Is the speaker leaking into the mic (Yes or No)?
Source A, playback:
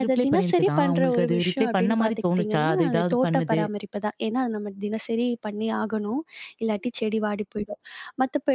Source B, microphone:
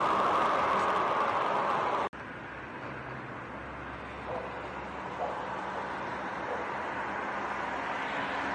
No